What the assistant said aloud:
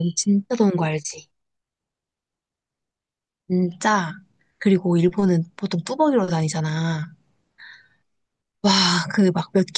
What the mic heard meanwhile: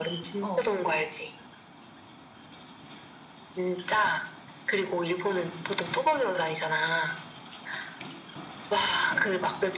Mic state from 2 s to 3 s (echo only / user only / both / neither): neither